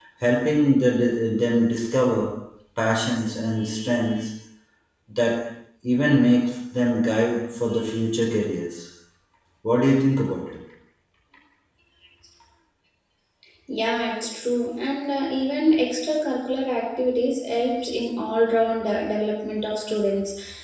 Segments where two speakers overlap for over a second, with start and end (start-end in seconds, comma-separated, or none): none